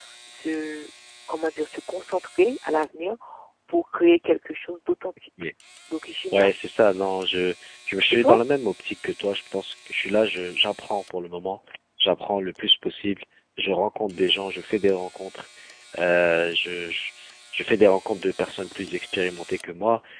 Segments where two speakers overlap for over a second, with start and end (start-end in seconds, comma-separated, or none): none